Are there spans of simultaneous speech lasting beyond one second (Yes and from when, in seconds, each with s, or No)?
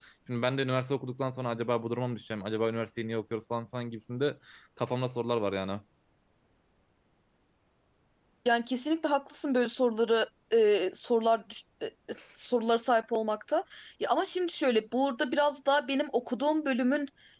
No